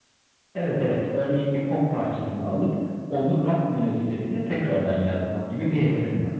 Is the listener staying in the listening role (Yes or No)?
No